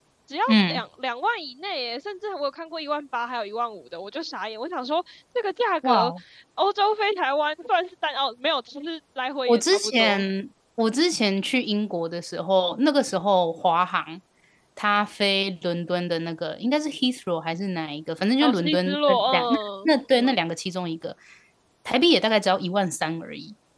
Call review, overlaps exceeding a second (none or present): present